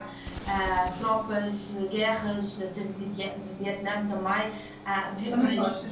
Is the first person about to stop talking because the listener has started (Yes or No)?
Yes